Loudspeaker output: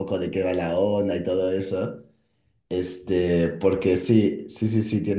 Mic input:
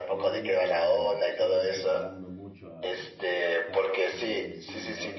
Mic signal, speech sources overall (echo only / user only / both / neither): both